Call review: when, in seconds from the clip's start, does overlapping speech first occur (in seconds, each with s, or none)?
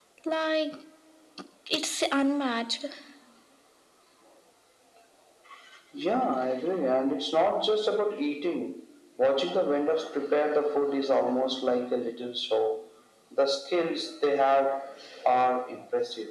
none